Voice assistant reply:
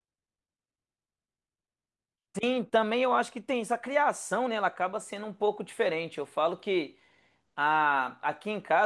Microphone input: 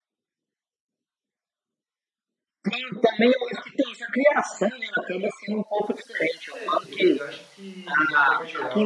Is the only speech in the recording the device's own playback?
No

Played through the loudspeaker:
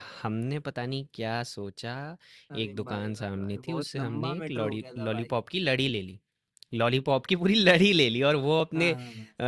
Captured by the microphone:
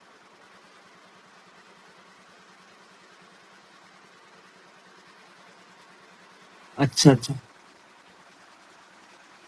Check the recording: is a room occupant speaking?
Yes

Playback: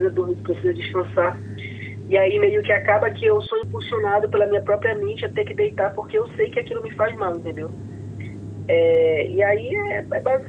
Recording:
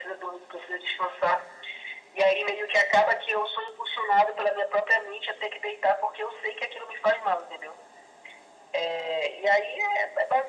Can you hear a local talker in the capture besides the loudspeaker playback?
No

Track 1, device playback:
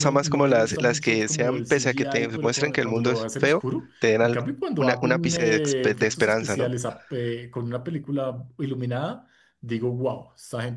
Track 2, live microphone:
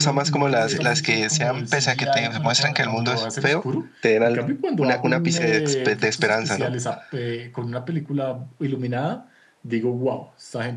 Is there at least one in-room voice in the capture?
Yes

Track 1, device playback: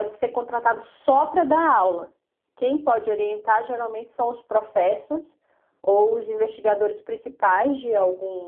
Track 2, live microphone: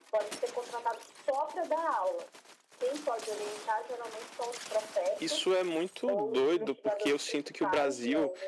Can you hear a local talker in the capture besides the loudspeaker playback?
Yes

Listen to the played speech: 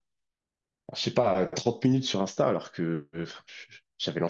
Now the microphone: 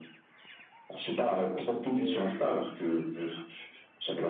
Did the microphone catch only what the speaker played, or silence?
No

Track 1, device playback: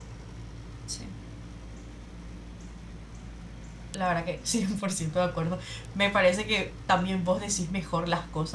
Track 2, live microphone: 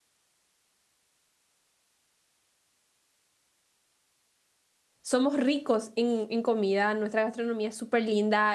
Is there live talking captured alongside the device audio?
Yes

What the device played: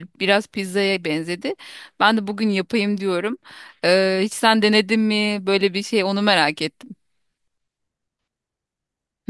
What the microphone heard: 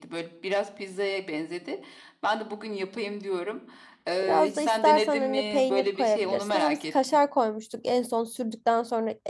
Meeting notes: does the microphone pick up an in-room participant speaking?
Yes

